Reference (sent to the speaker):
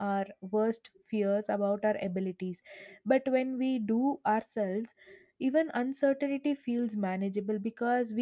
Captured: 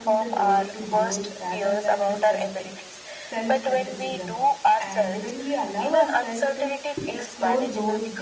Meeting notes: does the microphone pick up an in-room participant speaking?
Yes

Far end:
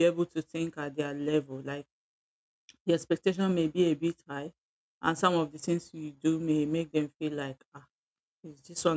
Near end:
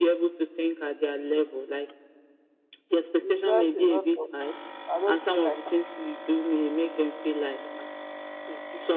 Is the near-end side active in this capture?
Yes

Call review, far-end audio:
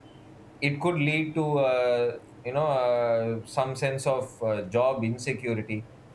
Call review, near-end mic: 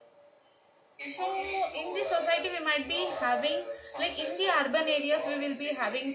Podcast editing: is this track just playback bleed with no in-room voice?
No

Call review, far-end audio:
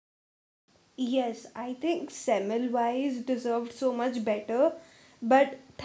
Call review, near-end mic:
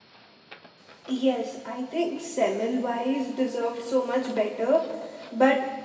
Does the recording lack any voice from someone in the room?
Yes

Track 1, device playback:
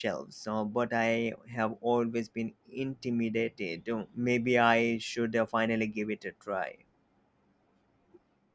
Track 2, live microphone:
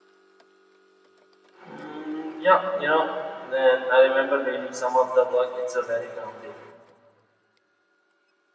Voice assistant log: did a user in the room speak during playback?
Yes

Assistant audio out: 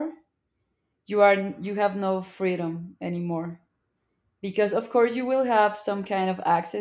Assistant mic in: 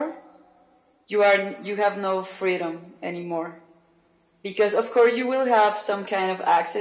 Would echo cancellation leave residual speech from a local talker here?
No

